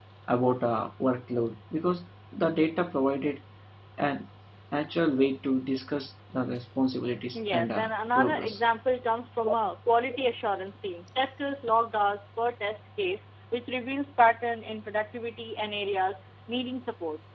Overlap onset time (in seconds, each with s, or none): 7.3 s